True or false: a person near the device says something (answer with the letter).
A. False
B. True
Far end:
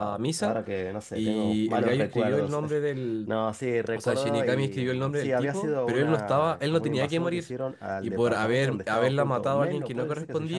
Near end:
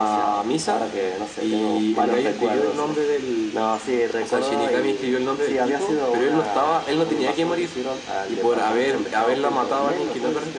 A